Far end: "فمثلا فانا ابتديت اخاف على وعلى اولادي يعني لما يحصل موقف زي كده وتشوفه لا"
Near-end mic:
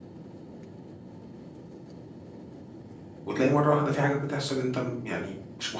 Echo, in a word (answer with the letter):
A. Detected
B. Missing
B